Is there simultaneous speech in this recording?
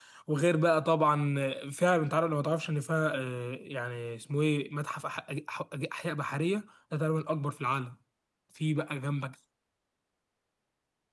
No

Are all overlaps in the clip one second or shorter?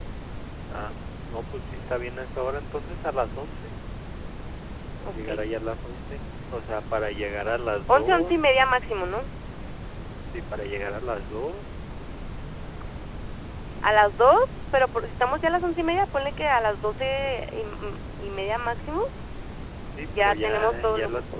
No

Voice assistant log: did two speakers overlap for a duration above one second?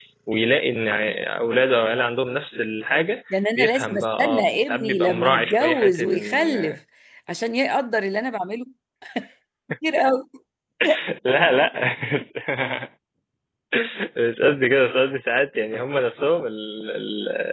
Yes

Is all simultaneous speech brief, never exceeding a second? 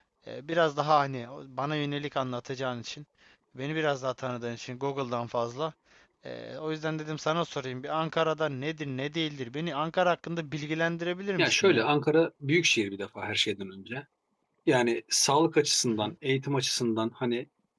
Yes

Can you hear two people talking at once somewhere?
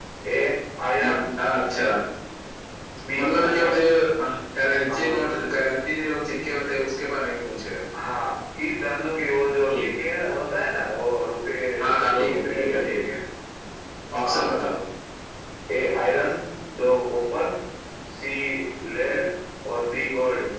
Yes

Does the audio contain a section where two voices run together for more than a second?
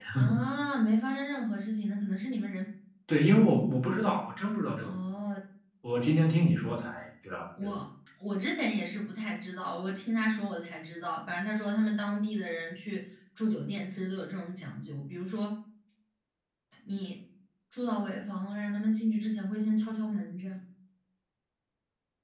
No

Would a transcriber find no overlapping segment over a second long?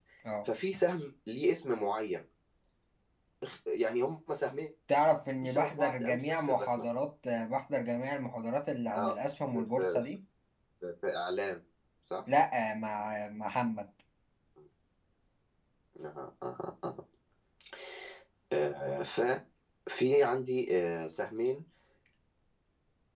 No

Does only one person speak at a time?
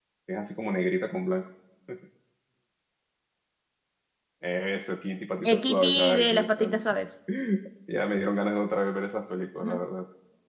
No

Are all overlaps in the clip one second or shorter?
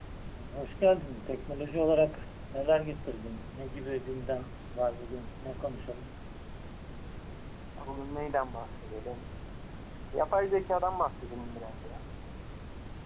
Yes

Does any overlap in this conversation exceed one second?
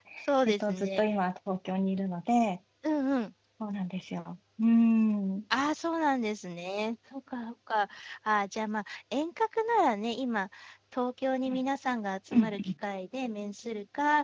No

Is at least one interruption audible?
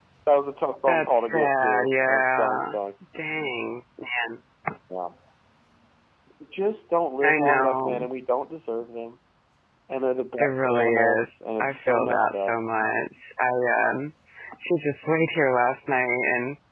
Yes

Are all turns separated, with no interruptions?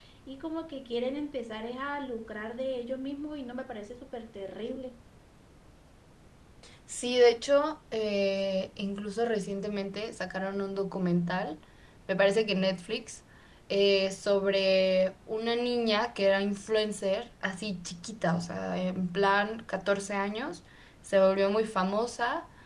Yes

